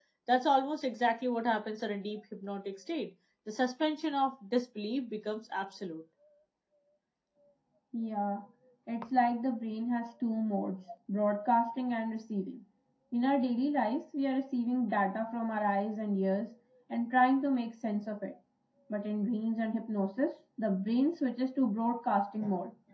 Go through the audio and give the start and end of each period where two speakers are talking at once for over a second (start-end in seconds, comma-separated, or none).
none